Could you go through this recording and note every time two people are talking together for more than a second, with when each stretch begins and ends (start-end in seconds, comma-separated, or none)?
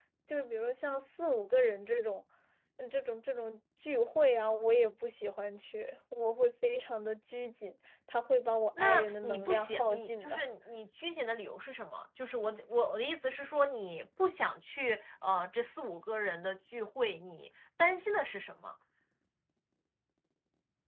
8.8-10.5